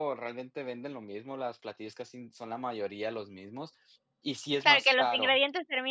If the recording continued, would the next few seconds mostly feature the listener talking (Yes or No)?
Yes